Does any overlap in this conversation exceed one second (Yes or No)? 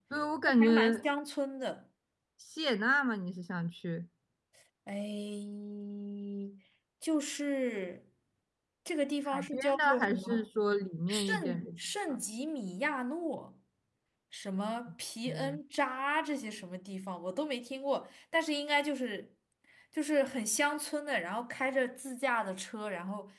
Yes